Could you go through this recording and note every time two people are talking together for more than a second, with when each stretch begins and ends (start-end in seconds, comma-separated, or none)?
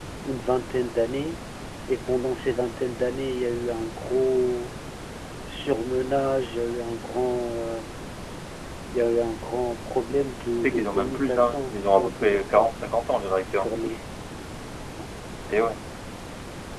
10.6-12.7